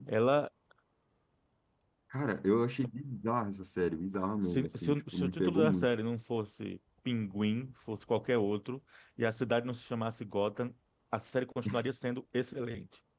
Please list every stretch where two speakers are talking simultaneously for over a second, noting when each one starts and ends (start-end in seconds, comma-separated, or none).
4.4-5.9